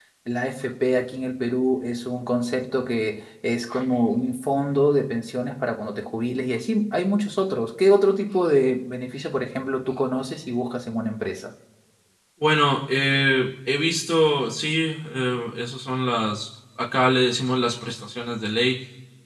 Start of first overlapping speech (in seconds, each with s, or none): none